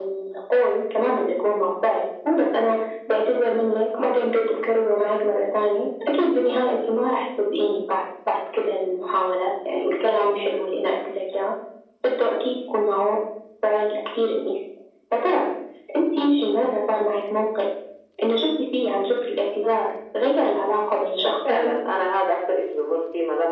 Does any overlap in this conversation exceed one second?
No

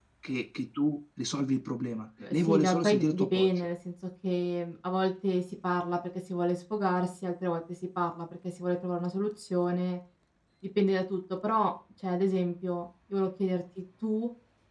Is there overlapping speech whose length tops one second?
Yes, from 2.2 s

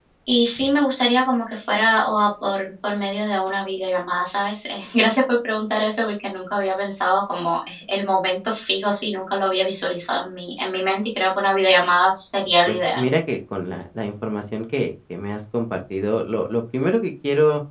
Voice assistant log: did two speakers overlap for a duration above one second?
No

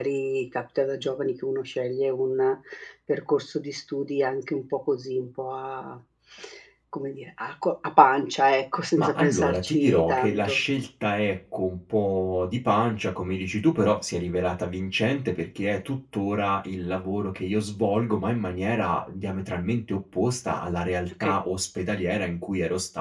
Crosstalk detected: Yes, from 9.0 s

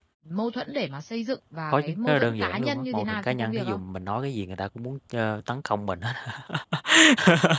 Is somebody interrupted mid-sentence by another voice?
Yes, from 1.7 s

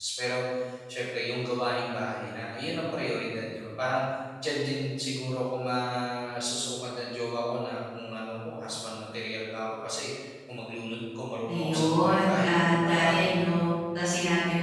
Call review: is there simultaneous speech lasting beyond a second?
Yes, from 11.5 s

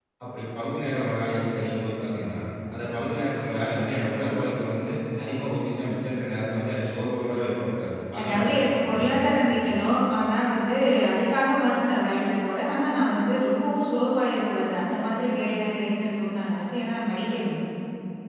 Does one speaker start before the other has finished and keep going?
Yes, from 8.2 s

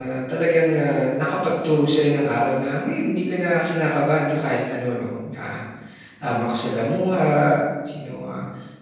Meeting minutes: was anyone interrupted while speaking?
No

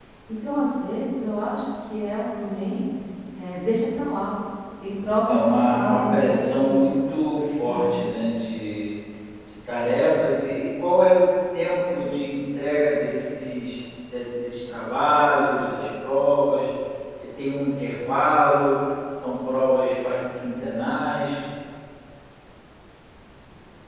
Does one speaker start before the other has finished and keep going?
Yes, from 5.3 s

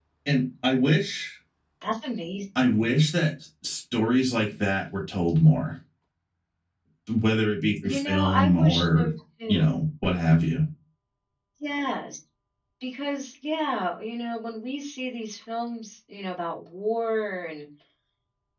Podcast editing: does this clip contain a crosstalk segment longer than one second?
Yes, from 7.8 s

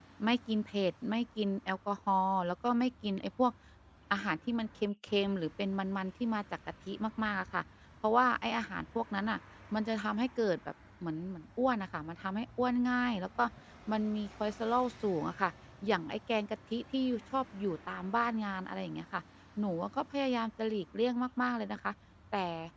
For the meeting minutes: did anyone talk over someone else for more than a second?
No

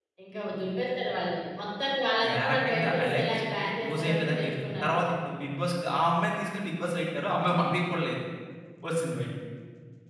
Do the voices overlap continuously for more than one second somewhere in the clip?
Yes, from 2.5 s

